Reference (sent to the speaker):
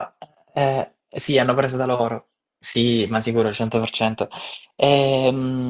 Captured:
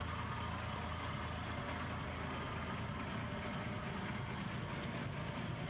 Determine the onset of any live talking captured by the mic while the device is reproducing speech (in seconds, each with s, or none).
none